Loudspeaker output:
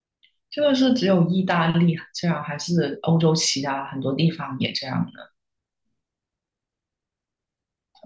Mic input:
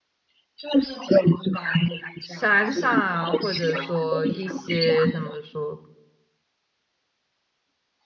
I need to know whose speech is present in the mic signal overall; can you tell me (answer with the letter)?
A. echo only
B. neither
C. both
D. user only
C